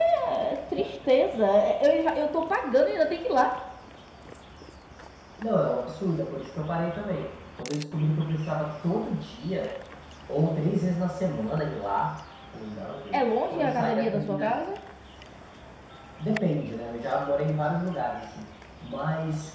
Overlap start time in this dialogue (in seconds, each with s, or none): 13.1 s